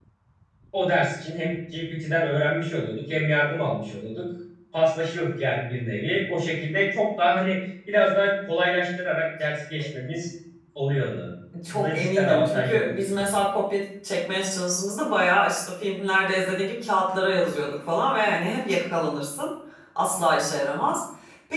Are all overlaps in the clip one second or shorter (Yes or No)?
No